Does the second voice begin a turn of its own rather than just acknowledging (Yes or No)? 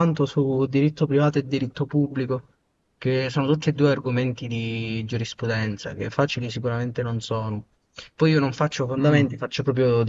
No